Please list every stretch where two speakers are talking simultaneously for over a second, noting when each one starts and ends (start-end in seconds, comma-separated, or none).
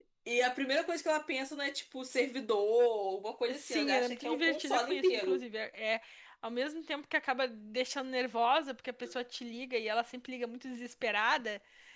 3.5-5.4